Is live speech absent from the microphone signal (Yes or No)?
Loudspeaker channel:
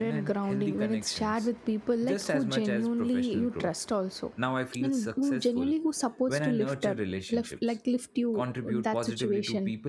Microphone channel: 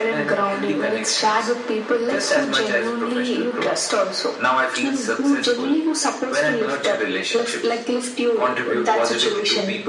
Yes